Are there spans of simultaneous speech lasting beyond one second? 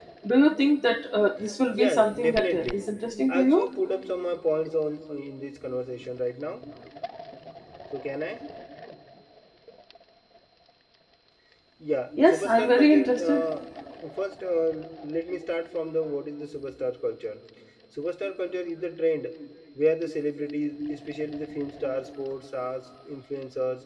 Yes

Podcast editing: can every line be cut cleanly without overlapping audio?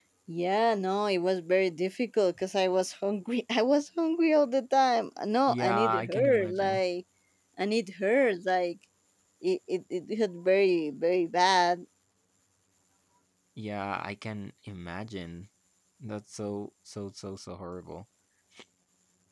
No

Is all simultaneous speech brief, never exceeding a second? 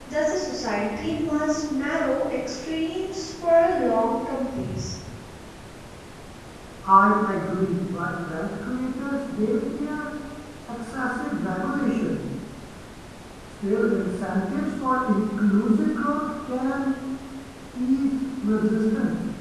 Yes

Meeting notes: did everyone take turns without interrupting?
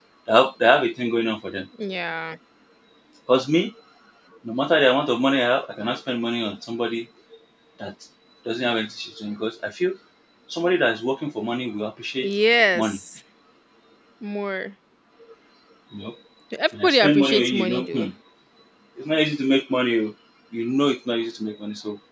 No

